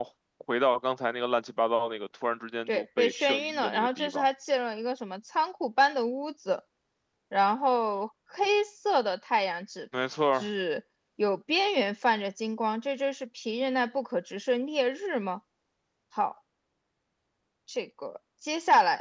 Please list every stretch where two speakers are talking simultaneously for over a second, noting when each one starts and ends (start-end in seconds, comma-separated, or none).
2.7-4.2